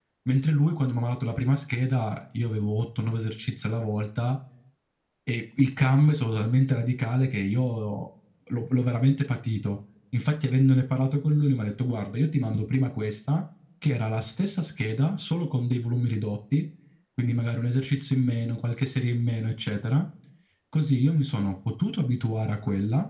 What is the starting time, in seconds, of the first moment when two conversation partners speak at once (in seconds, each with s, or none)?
none